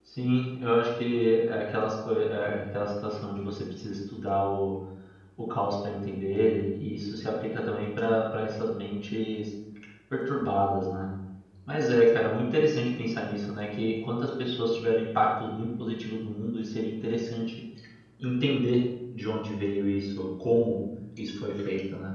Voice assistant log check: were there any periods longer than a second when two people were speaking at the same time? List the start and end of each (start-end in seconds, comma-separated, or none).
none